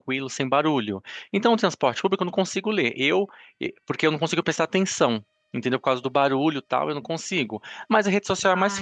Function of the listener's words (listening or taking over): listening